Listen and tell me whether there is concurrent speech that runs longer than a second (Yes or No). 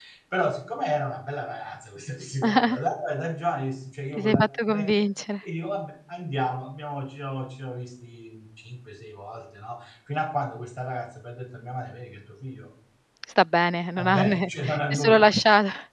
Yes